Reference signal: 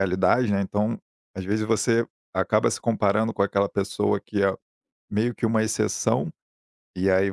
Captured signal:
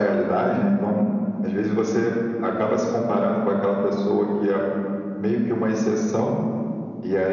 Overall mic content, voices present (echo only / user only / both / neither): echo only